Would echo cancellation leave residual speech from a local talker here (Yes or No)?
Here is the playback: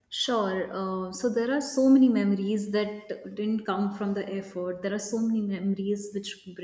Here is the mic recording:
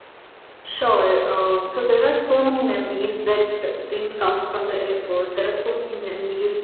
No